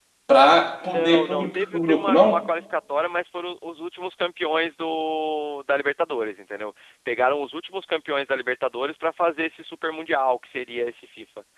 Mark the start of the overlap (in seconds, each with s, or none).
0.8 s